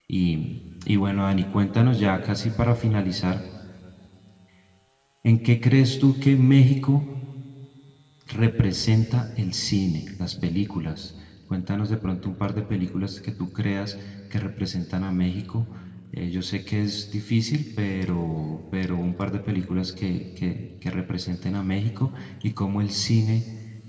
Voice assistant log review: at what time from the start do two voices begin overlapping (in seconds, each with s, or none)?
none